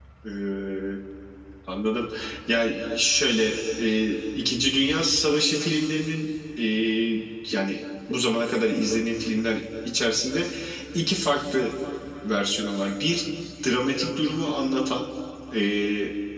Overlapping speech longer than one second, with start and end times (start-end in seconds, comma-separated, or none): none